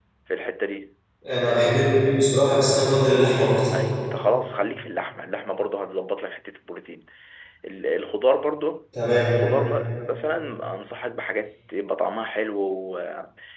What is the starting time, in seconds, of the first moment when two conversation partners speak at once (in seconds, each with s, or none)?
none